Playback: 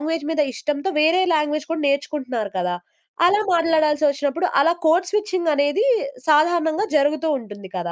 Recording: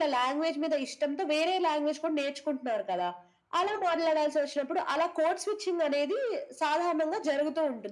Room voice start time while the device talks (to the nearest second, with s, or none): none